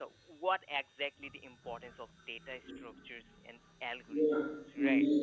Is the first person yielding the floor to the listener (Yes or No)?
Yes